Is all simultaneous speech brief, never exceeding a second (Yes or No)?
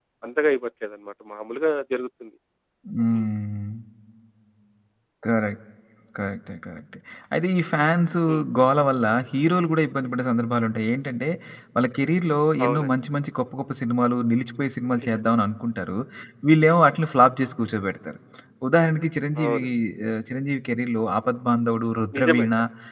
Yes